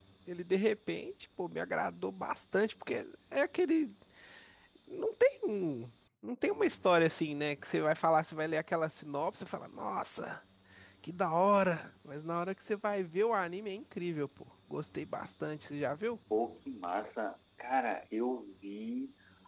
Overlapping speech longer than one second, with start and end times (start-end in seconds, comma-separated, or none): none